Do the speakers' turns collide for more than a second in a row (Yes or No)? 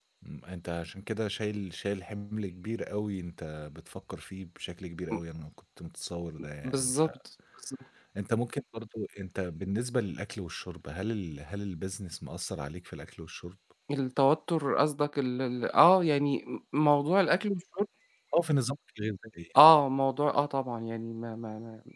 No